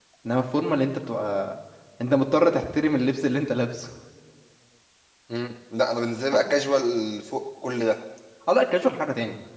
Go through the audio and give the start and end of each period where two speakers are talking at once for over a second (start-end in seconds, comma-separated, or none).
none